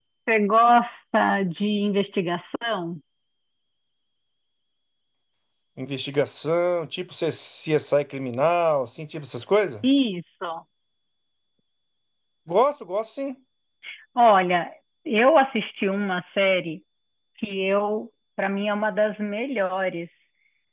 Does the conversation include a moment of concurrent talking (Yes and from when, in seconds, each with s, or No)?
No